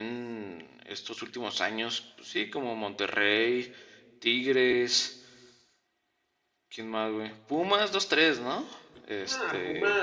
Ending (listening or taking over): taking over